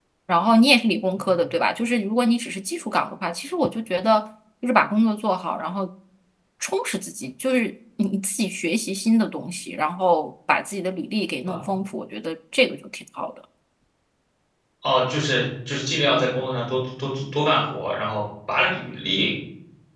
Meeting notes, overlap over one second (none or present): none